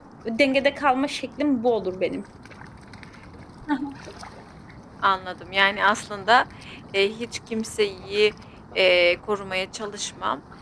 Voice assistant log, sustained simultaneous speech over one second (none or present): none